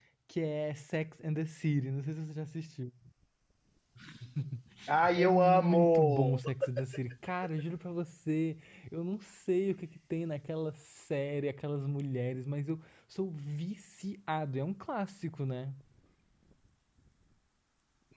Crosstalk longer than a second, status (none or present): present